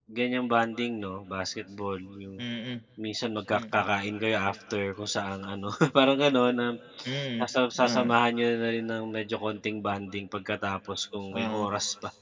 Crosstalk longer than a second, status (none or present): none